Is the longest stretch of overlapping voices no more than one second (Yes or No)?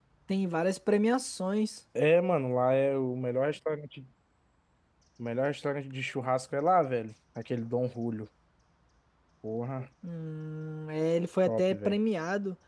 Yes